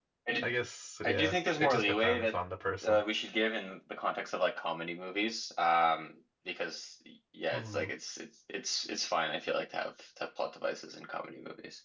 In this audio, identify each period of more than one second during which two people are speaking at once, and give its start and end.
1.0-2.4

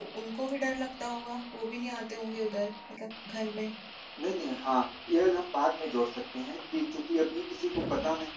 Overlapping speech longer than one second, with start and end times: none

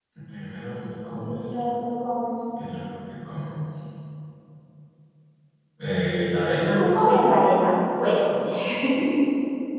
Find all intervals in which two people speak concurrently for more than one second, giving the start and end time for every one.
none

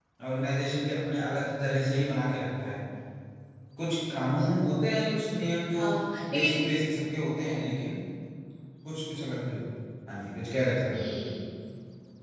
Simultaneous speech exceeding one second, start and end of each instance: none

